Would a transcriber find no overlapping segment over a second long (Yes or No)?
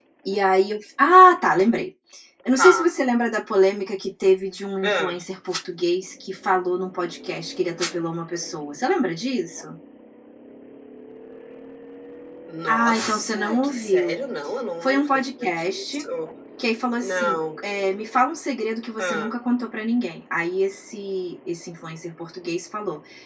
No